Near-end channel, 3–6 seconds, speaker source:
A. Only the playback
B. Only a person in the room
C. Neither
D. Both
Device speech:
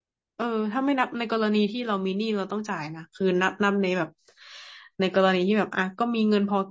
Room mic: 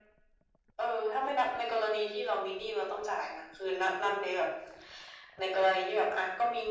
A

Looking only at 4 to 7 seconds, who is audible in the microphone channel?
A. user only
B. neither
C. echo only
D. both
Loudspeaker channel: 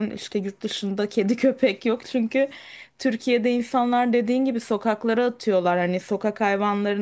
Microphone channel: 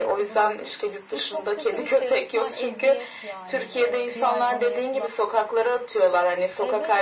D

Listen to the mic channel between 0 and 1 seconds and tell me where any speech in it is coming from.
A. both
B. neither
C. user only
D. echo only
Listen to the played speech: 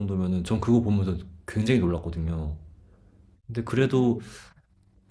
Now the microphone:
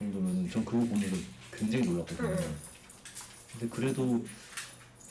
D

